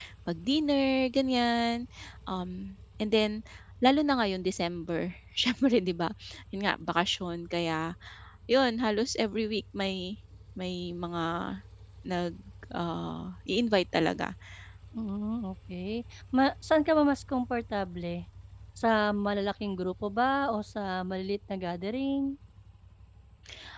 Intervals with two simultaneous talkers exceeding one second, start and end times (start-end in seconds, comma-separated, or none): none